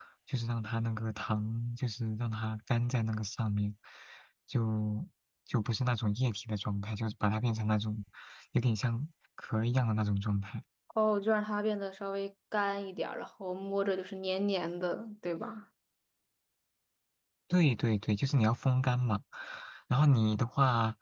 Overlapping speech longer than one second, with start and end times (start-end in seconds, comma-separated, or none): none